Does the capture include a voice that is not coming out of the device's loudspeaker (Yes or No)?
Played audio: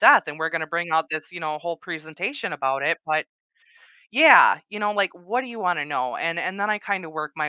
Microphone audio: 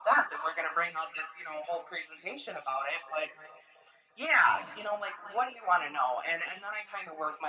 No